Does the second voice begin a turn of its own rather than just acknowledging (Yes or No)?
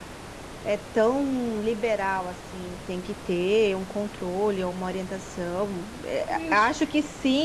No